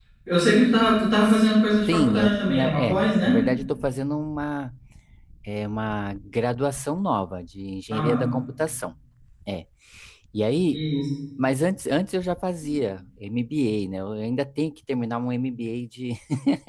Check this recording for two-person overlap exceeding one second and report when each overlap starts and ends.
1.9-3.4

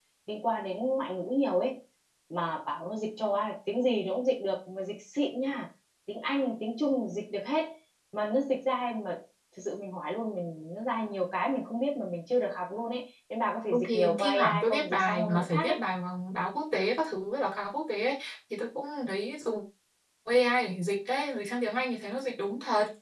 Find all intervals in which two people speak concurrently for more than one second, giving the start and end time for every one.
13.7-15.7

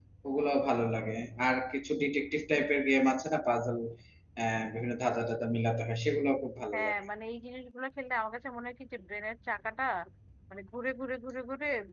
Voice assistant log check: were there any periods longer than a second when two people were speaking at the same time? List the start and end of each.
none

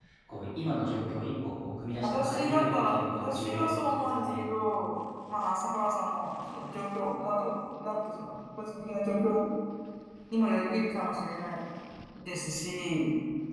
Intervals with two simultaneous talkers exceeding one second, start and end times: 2.0-4.4

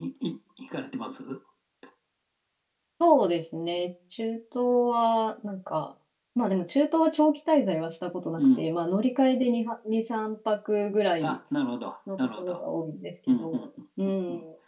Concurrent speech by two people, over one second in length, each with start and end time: none

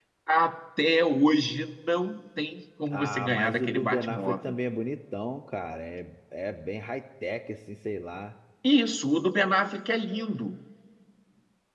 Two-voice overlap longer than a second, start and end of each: 2.9-4.5

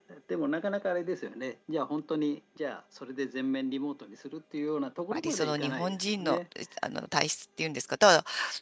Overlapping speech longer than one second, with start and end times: 5.1-6.4

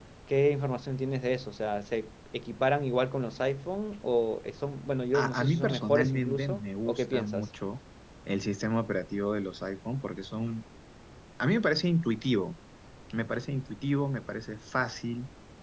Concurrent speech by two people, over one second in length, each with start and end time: 5.1-7.5

